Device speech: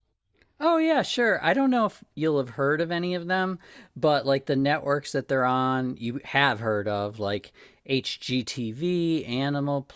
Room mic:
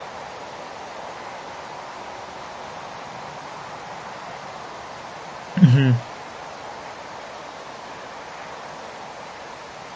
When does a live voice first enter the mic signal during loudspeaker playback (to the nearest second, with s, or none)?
6 s